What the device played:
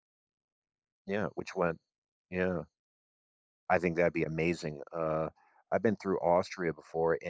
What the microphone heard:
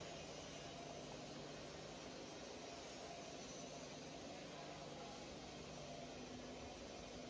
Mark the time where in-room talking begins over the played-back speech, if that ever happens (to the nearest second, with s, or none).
none